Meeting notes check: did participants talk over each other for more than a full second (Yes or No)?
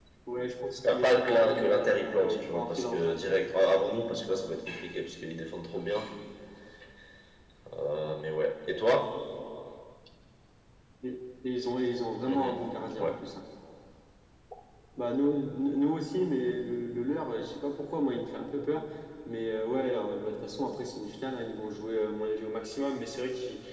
Yes